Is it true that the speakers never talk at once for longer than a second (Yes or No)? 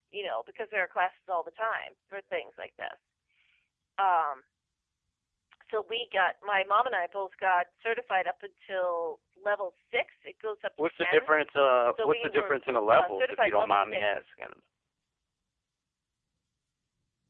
No